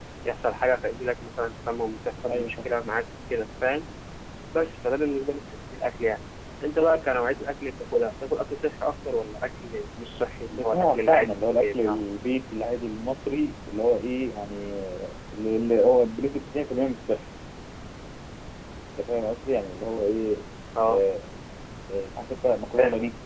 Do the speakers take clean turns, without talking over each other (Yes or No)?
No